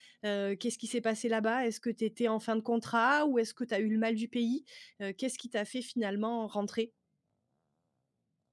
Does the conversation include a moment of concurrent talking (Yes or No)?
No